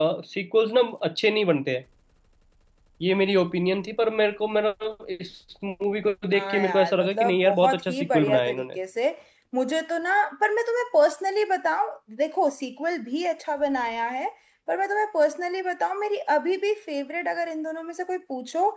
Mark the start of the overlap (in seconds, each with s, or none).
6.3 s